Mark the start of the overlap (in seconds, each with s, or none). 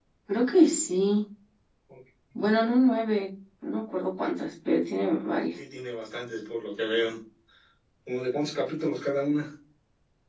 none